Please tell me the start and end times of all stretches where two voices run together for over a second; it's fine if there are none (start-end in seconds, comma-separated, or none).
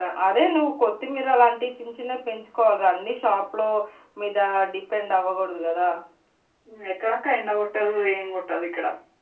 none